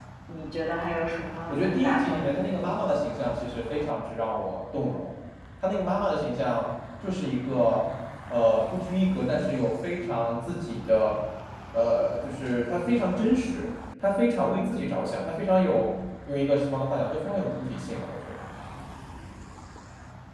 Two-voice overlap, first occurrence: 1 s

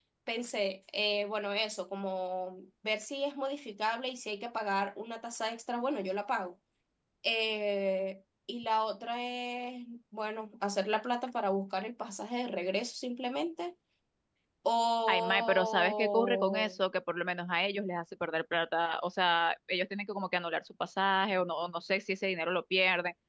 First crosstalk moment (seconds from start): 15 s

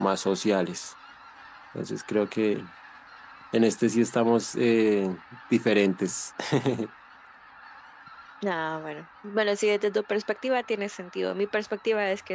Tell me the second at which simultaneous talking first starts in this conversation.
none

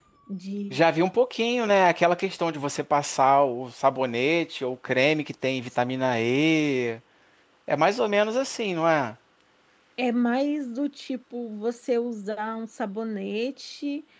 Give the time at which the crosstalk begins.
none

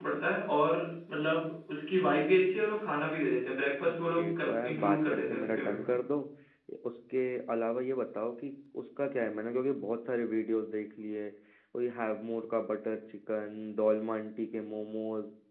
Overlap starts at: 4 s

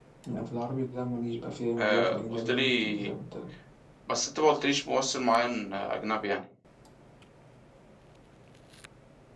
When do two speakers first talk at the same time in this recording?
2 s

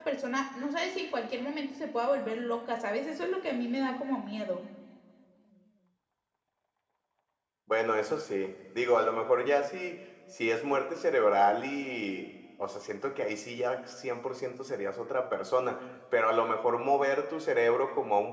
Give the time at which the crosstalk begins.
none

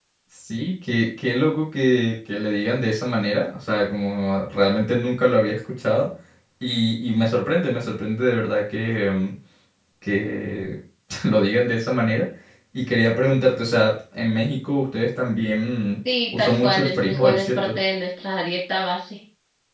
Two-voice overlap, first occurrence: 16 s

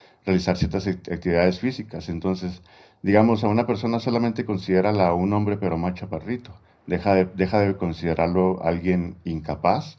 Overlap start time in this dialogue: none

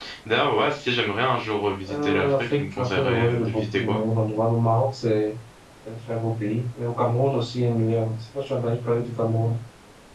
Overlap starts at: 2 s

